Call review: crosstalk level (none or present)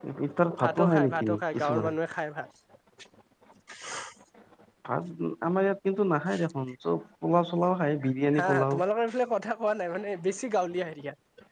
present